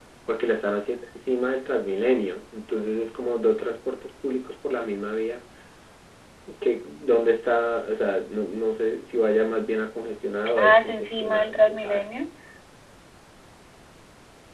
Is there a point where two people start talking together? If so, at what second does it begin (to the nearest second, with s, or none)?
11 s